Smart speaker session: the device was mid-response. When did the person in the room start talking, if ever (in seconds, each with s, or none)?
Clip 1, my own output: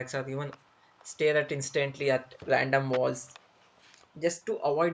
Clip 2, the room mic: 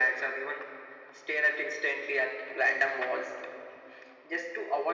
none